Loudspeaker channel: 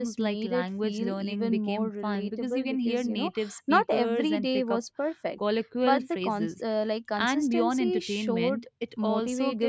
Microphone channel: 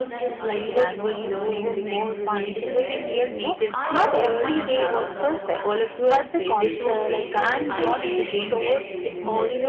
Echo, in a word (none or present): present